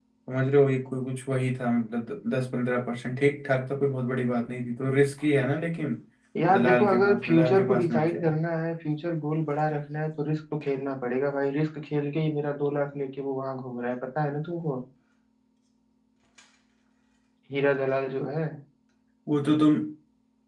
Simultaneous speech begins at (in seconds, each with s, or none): 6.5 s